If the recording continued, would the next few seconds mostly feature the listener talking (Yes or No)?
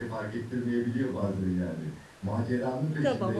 No